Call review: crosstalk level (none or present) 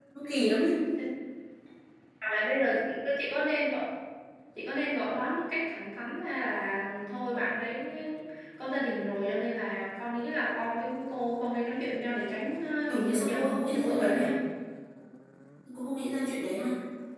present